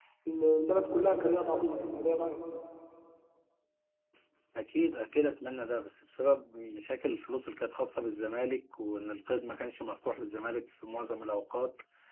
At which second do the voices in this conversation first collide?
none

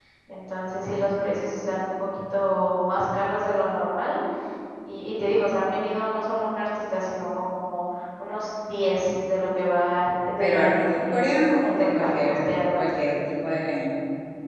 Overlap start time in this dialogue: 10.4 s

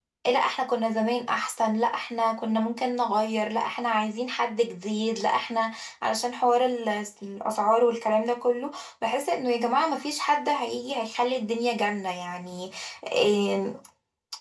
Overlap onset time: none

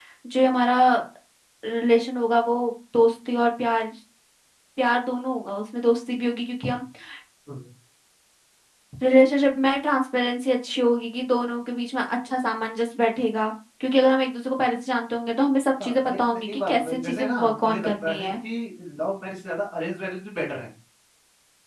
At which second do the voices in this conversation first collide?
15.8 s

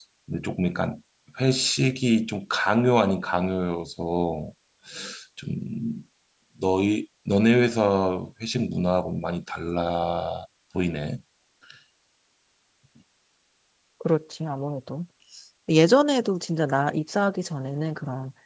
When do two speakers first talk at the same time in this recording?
none

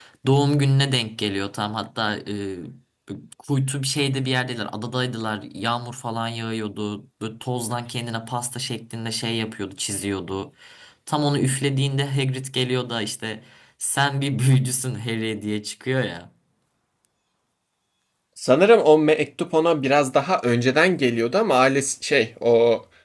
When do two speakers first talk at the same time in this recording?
none

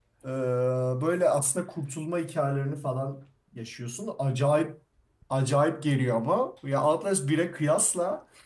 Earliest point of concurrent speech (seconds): none

